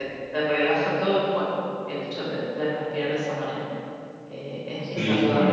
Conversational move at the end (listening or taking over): taking over